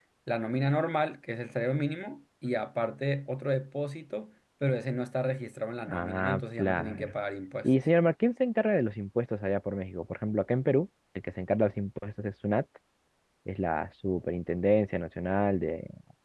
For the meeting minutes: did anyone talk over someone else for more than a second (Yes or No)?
Yes